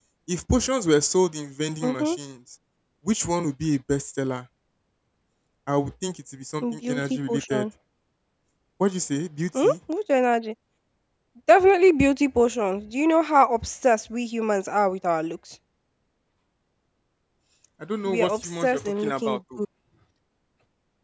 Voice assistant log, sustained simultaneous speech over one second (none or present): present